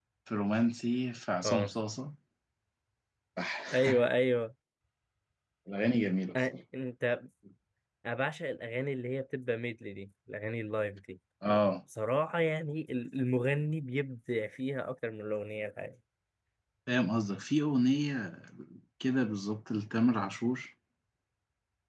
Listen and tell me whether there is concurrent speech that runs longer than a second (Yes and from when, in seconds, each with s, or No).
No